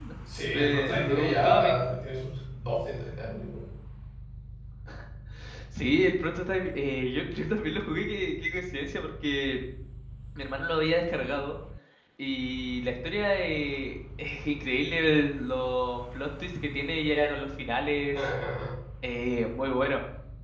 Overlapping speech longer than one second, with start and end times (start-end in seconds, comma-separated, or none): 0.5-1.8